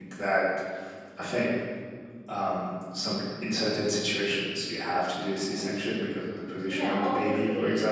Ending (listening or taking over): taking over